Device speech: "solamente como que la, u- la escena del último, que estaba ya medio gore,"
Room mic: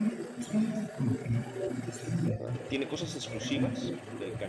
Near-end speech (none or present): present